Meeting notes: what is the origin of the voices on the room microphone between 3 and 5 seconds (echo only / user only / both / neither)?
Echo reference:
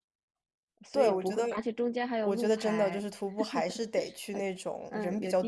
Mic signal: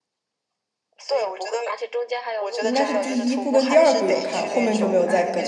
both